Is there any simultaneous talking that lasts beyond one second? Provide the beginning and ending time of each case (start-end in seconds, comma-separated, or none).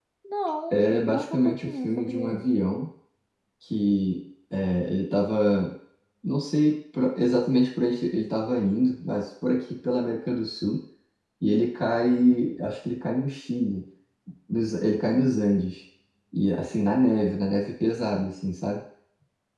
0.7-2.4